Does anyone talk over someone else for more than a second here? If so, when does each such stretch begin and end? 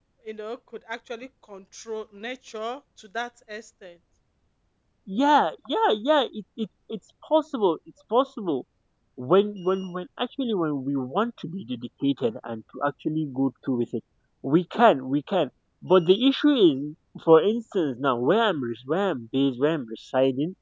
none

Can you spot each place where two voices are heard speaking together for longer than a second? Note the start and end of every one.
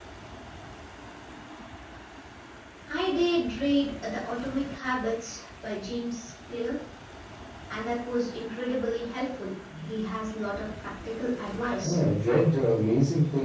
none

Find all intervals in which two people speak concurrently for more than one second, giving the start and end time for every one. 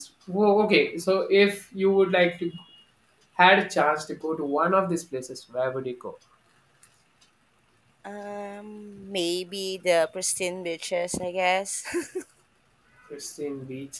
none

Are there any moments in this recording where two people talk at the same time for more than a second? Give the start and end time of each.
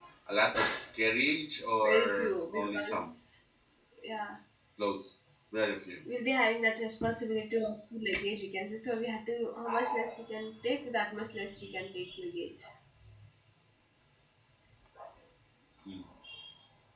1.8-3.1

